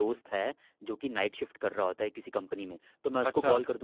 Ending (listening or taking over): listening